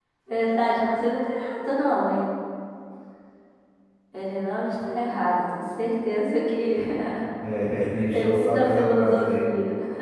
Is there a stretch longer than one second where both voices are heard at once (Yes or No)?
Yes